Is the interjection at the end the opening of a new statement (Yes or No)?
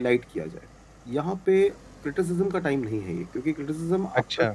No